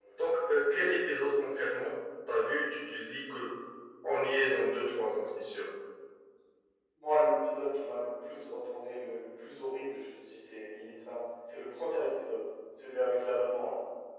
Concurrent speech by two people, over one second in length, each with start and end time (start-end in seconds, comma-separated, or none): none